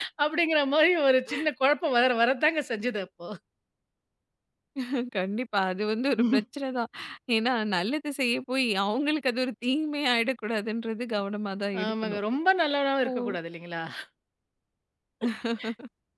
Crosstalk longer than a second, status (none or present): none